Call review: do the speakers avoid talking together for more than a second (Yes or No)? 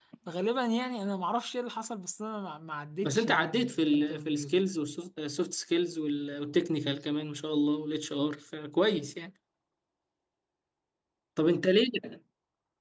No